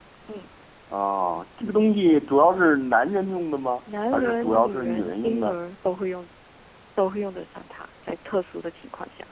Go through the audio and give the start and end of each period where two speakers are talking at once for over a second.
4.1-5.6

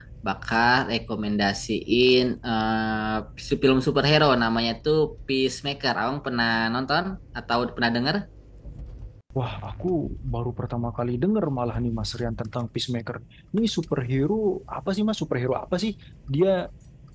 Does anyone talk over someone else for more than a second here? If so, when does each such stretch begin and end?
none

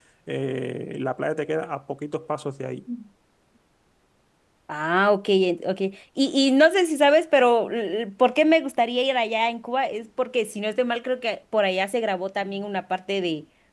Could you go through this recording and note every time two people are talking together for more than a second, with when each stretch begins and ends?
none

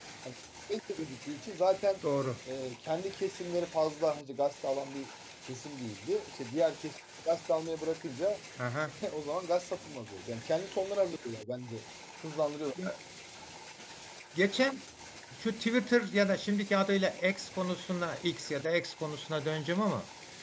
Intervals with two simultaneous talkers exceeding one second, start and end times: none

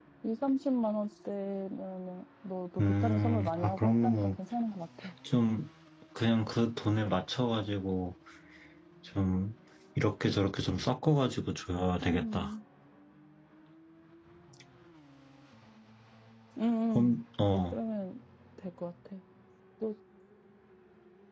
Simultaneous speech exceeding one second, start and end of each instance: 2.8-4.4

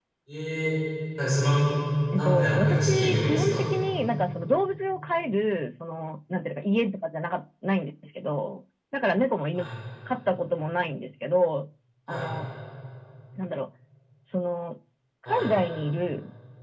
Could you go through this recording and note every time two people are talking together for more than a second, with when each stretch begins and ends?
2.1-3.7

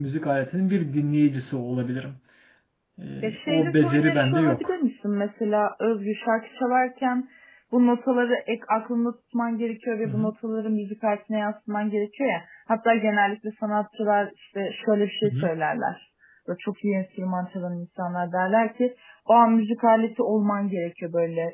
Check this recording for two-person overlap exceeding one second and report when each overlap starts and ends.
3.5-4.7

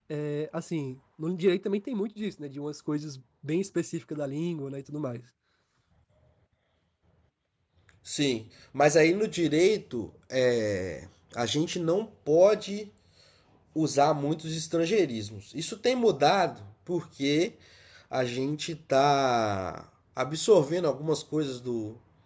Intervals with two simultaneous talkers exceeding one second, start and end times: none

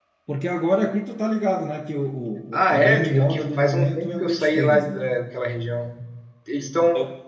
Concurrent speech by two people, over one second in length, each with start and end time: 2.5-5.0

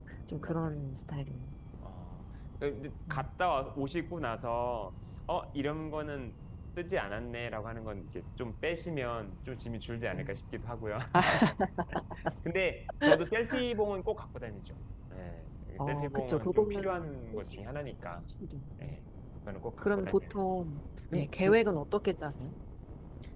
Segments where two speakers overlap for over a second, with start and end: 15.9-17.4

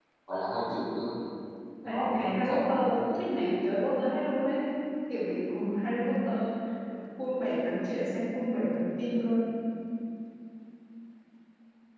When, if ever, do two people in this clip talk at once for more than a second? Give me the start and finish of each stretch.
1.8-3.2

